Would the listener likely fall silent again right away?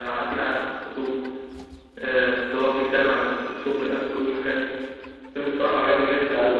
Yes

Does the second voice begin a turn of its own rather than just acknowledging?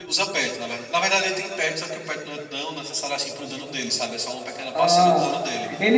Yes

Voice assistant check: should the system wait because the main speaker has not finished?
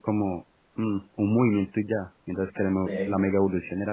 Yes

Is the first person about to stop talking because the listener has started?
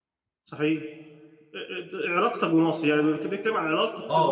Yes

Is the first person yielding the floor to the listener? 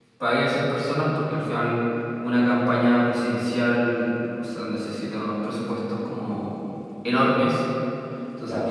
No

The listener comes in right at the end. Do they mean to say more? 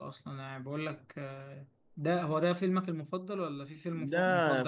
Yes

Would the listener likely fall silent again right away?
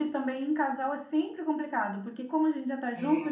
Yes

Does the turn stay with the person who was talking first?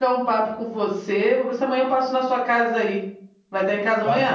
No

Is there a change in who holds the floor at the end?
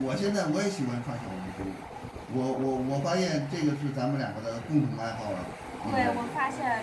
Yes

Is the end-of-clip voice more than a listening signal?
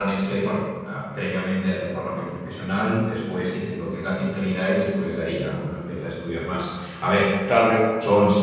No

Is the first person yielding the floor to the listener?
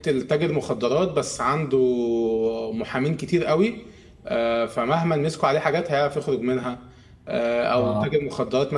No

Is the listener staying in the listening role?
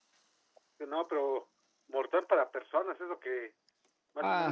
No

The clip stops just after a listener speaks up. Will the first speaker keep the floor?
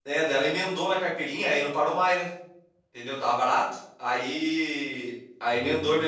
Yes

